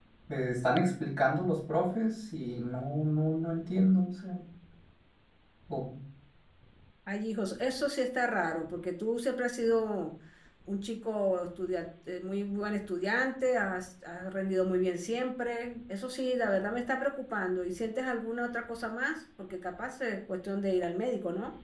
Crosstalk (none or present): none